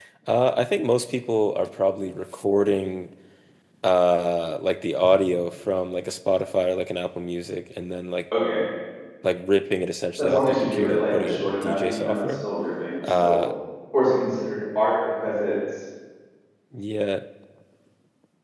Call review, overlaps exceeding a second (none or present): present